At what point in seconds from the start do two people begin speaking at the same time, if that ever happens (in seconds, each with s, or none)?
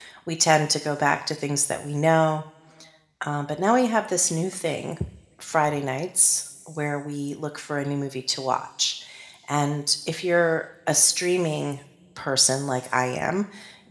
none